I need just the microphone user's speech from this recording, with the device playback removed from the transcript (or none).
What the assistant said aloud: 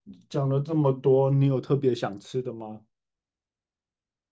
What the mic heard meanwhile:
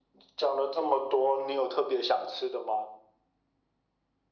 none